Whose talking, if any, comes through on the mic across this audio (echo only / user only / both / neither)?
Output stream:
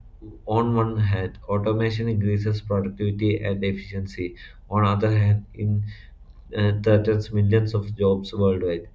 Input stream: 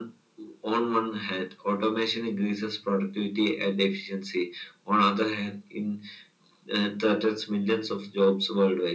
echo only